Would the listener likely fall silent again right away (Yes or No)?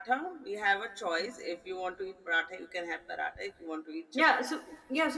No